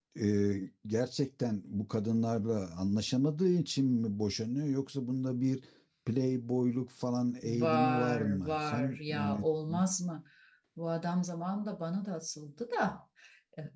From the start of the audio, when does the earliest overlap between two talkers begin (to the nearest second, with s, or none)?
7 s